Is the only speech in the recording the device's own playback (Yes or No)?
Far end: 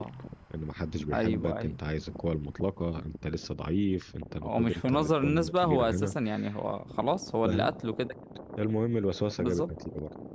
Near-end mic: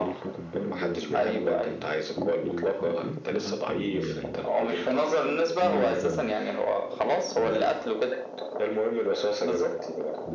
No